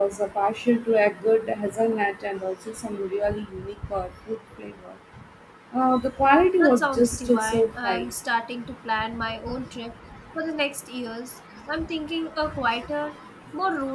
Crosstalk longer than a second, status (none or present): present